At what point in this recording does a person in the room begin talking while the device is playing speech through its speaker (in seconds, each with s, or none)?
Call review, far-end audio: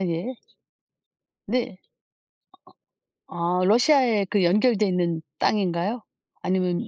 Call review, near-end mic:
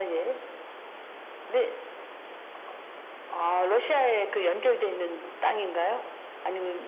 none